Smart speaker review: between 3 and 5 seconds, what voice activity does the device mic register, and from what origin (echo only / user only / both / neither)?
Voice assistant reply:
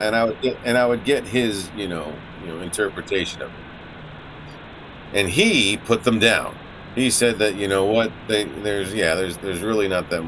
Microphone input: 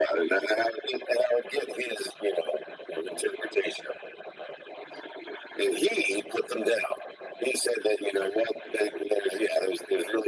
echo only